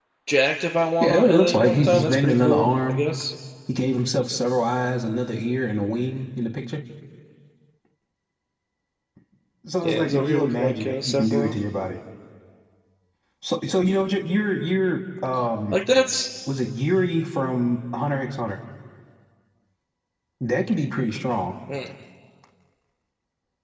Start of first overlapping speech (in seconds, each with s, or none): 1.0 s